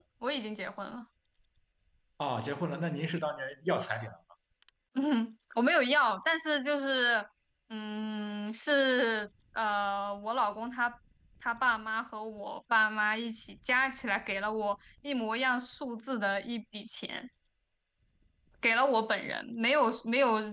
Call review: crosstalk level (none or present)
none